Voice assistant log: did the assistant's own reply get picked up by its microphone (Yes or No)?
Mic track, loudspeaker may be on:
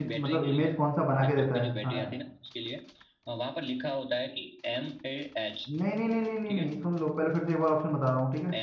Yes